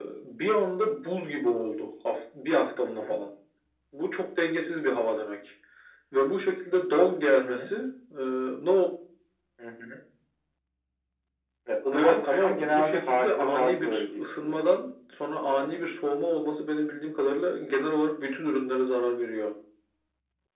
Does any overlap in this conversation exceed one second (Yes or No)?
Yes